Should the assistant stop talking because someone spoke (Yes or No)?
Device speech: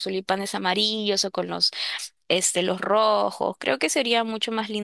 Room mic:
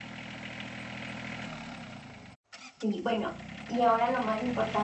Yes